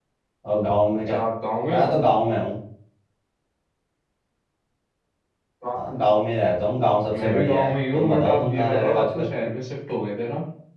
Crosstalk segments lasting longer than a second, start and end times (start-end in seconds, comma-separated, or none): 7.2-9.3